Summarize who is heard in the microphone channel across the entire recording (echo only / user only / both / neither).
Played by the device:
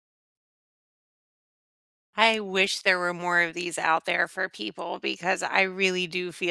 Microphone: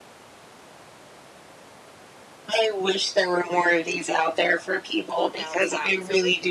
both